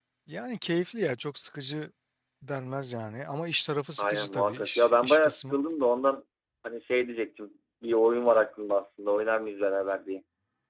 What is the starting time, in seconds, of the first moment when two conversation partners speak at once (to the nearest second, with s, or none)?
4 s